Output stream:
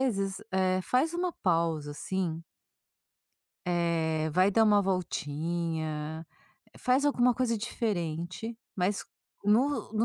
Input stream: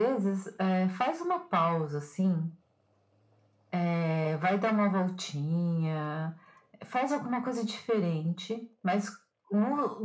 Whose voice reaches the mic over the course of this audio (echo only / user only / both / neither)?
echo only